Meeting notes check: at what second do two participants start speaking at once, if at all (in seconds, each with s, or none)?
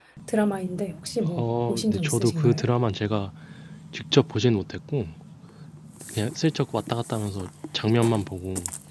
1.2 s